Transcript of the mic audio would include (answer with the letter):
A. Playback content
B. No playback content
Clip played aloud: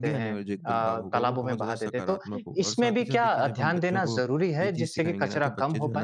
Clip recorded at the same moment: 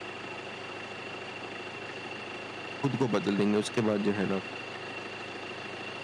B